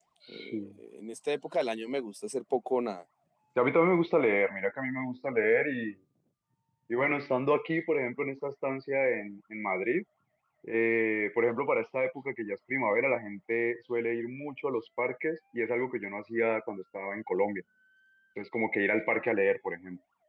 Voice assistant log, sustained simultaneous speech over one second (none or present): none